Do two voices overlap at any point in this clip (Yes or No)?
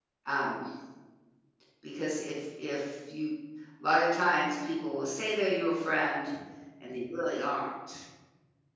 No